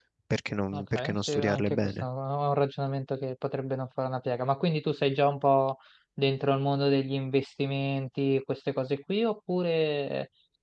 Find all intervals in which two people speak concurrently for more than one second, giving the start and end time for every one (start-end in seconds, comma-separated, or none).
0.7-2.0